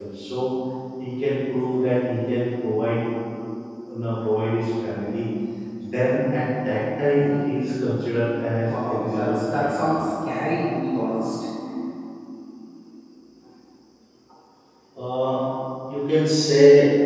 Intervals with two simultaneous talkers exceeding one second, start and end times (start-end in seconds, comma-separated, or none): 8.7-10.0